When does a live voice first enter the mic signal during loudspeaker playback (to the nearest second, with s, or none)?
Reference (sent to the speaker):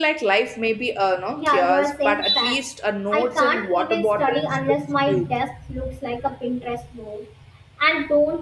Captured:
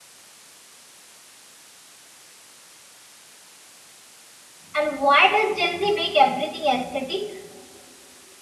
5 s